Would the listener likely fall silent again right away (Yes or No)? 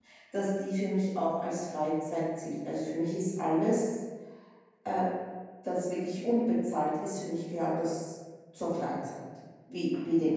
No